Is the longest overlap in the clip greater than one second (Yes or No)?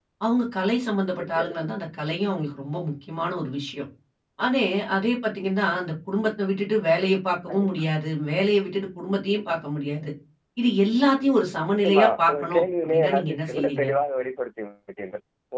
Yes